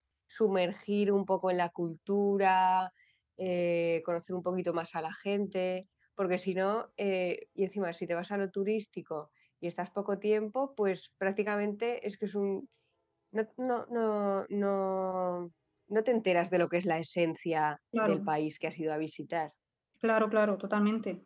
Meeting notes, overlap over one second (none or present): none